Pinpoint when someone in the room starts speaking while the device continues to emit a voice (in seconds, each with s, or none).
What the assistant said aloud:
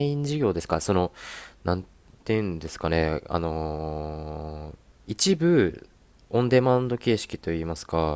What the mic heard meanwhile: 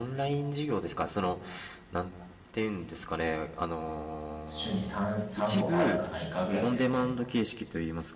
4.4 s